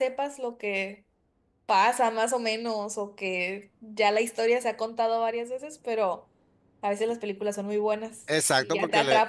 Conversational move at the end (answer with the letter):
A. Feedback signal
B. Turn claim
B